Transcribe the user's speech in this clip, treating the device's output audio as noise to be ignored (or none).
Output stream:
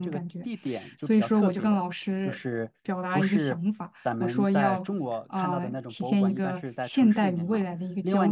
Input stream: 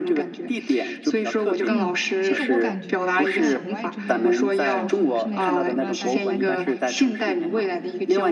嗯，其实我感觉在国外这边上学，现在也读了大概三年嘛，